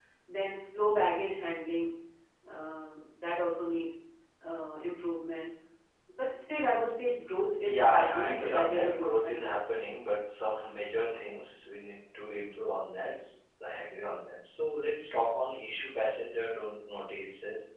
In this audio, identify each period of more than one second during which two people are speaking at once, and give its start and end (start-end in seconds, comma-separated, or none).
7.6-9.5